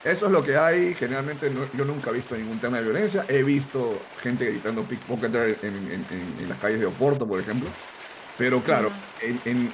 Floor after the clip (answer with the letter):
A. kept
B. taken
A